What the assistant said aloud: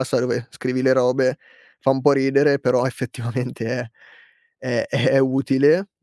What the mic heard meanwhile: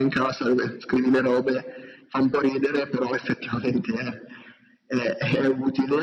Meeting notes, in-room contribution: none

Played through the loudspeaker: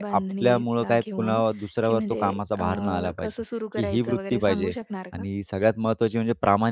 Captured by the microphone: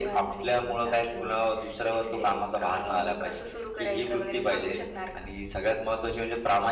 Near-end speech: none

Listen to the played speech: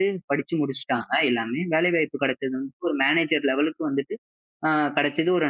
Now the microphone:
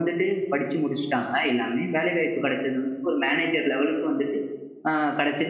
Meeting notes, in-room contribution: none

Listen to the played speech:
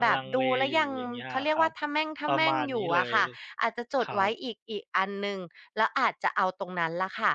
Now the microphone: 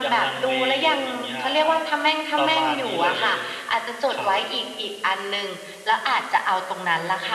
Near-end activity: none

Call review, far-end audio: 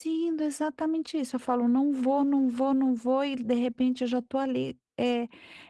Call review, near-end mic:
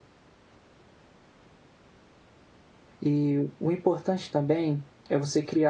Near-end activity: present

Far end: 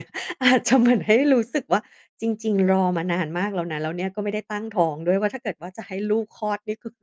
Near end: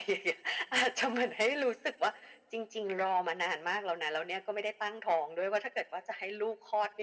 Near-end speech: none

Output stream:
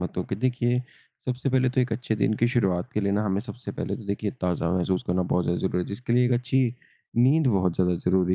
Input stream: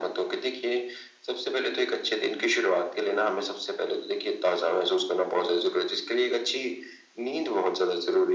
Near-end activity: none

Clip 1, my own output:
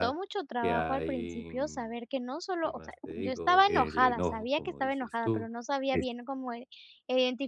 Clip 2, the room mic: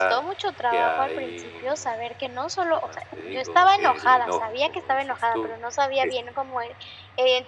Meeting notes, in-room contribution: none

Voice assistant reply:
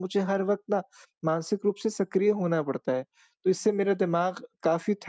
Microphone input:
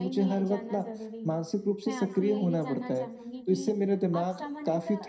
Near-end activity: present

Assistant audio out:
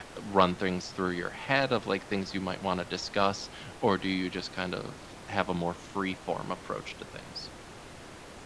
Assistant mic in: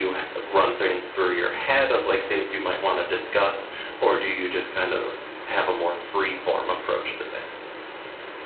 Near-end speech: none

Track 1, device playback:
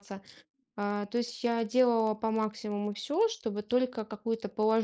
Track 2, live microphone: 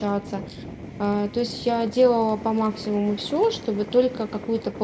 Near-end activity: none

